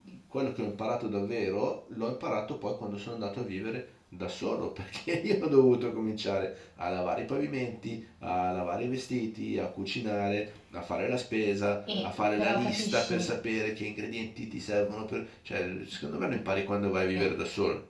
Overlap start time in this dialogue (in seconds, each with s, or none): 11.9 s